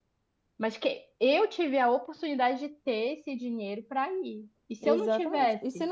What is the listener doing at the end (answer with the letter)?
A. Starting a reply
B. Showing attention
A